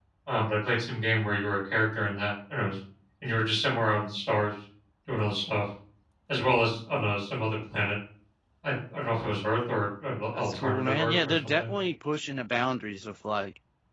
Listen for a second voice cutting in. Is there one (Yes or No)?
Yes